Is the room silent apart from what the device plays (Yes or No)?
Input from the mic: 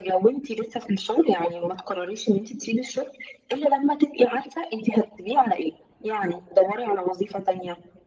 Yes